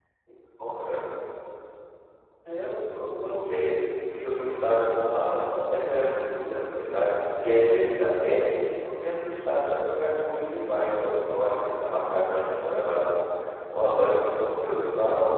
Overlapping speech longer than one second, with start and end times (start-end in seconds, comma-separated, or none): 4.1-5.4